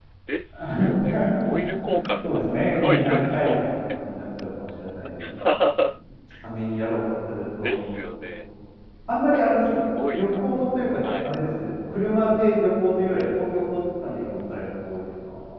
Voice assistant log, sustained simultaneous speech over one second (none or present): present